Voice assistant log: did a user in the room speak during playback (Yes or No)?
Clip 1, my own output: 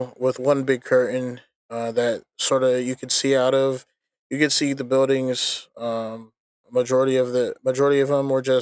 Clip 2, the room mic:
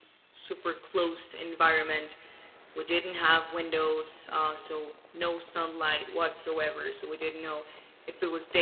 Yes